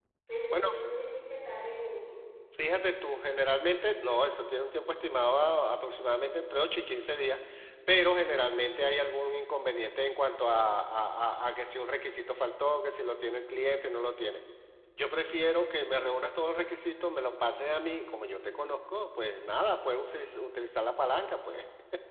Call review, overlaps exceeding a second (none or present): none